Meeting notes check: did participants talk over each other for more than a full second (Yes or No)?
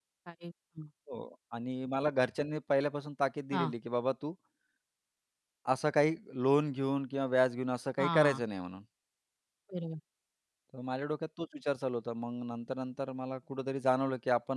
No